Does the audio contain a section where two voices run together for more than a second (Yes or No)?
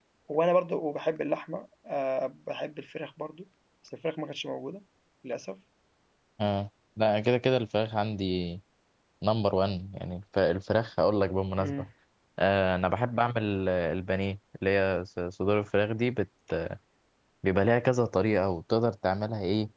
No